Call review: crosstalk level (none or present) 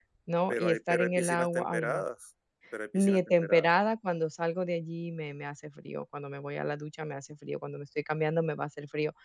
present